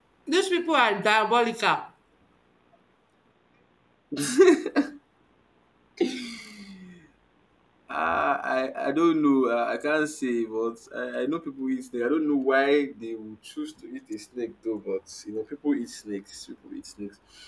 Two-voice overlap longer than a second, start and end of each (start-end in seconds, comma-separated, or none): none